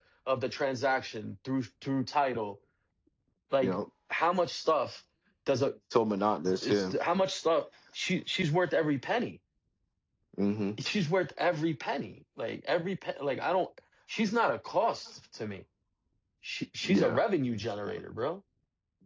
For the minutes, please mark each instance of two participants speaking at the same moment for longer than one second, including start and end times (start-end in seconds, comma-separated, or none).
none